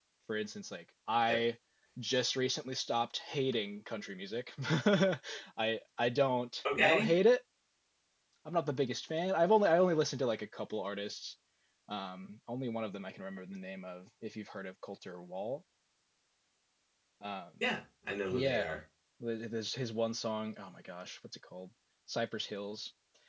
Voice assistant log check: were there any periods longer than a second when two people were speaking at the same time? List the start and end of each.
none

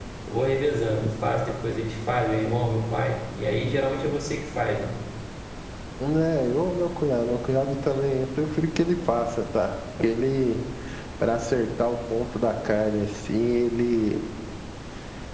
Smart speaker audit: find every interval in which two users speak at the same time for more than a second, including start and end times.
none

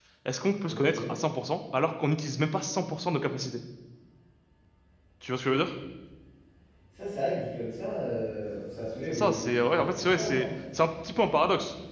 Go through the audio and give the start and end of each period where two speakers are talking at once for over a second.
9.1-10.4

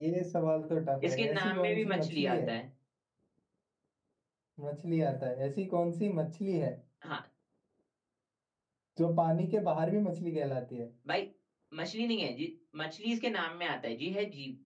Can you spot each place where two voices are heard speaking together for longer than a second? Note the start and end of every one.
1.1-2.5

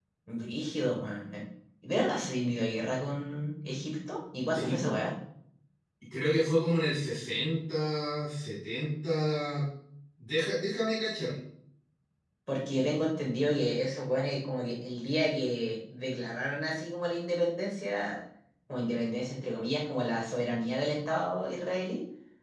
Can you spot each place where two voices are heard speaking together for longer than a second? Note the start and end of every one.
none

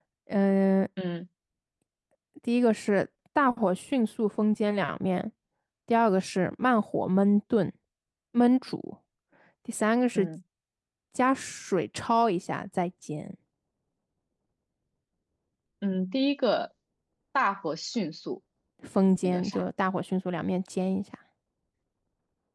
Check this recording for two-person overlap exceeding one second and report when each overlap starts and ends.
none

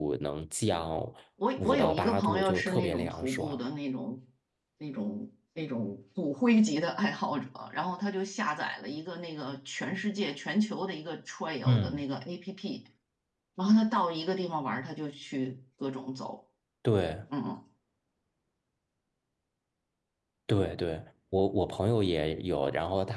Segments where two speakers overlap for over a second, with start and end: 1.5-3.6

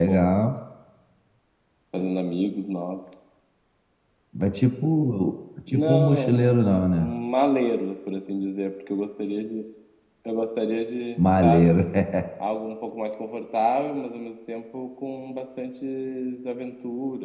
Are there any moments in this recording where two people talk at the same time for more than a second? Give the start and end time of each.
5.7-7.1

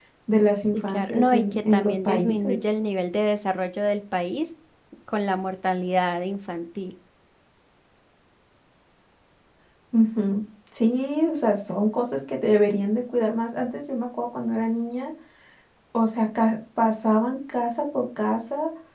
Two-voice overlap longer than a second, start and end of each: 0.7-2.6

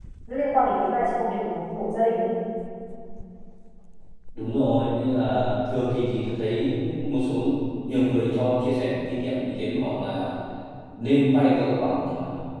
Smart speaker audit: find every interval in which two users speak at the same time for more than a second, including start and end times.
none

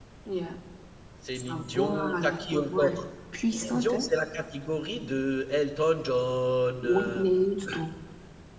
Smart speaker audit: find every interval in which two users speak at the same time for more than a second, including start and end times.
1.4-3.0

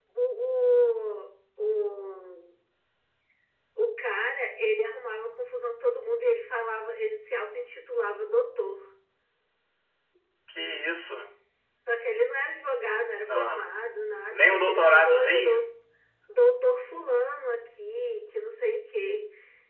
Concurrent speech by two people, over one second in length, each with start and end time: 14.3-15.6

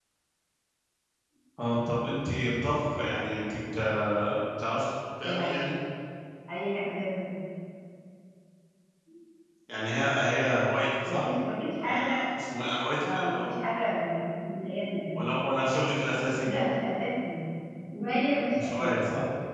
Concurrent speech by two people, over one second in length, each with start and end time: none

